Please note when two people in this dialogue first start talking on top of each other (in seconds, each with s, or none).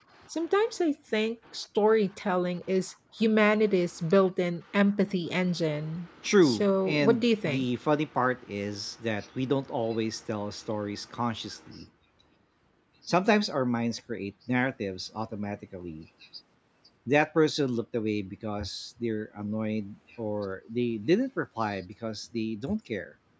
6.2 s